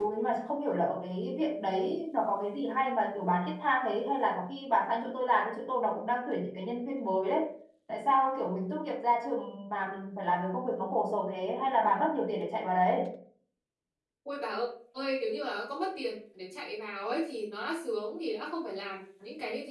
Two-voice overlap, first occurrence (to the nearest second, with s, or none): none